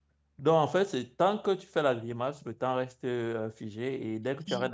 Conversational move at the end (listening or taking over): listening